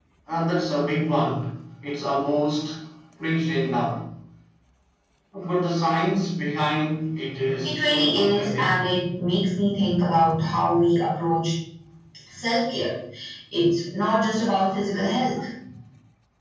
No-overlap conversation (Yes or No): No